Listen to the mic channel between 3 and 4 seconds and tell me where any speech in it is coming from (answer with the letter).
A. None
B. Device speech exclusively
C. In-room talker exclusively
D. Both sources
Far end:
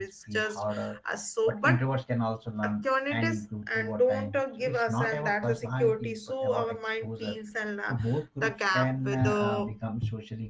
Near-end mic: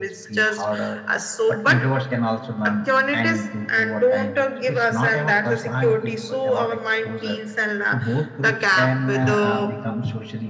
B